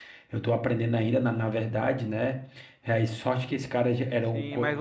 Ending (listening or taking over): taking over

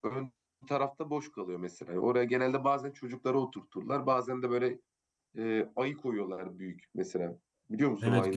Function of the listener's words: taking over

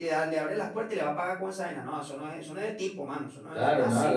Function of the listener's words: taking over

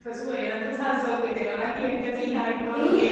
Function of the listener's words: taking over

